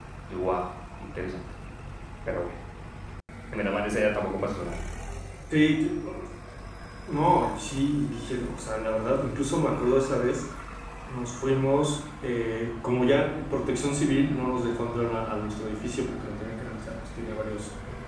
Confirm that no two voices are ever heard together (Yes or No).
Yes